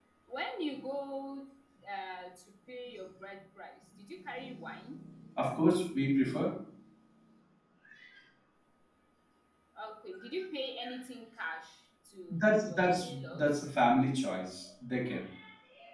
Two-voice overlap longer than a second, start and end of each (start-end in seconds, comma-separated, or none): 12.3-13.6